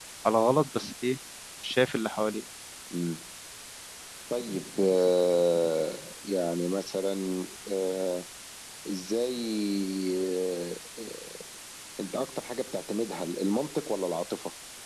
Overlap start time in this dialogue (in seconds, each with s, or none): none